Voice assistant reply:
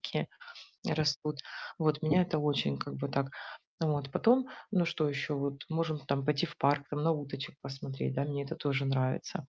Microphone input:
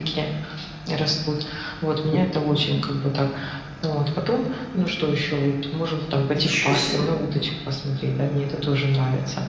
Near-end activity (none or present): present